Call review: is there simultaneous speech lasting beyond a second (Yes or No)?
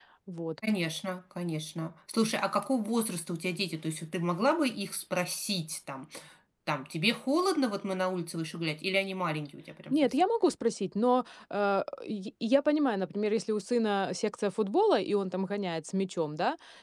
No